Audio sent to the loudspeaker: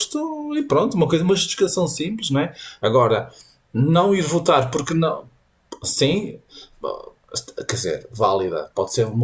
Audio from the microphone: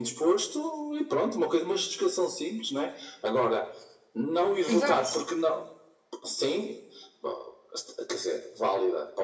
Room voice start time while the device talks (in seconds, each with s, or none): 4.7 s